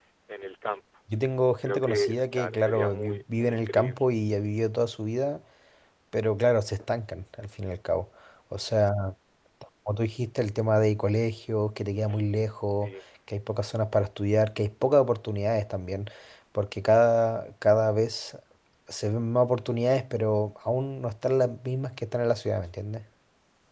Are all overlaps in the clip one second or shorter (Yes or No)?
No